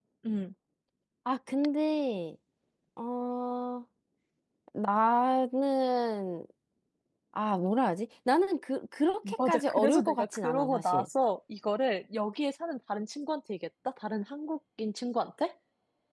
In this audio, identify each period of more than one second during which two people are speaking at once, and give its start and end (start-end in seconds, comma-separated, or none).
9.5-11.1